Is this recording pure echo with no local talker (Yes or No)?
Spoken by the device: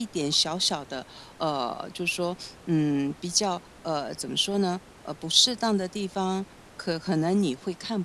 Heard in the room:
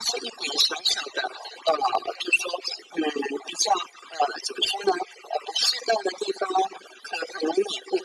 Yes